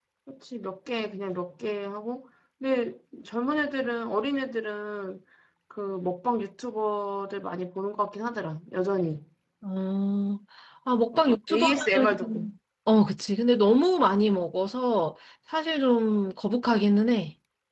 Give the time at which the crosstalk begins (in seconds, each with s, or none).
11.1 s